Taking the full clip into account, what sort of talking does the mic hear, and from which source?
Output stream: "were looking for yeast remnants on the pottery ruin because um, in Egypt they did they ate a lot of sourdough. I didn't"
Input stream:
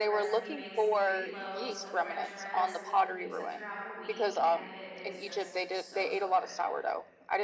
both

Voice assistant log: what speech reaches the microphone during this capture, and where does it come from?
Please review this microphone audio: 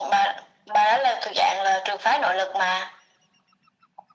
echo only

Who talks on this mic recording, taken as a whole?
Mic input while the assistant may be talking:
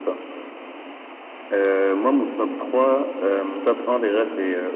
echo only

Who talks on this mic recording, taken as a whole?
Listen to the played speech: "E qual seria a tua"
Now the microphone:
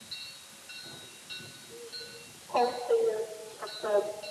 echo only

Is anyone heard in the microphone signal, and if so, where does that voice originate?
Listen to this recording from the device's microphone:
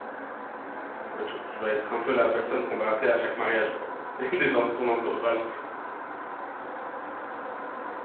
user only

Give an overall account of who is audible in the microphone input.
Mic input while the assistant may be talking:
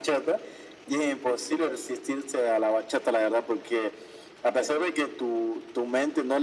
echo only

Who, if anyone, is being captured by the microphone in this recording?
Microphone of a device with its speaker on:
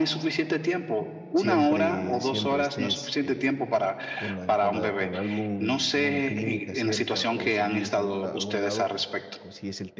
both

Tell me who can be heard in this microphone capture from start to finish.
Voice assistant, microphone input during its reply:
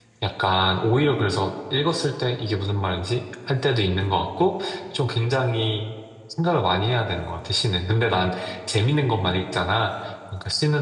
user only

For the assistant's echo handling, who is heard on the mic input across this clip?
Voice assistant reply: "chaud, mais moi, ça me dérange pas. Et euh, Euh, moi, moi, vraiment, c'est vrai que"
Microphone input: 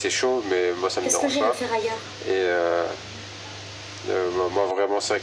both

